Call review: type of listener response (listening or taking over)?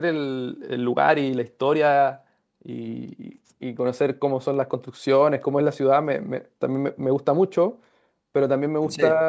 listening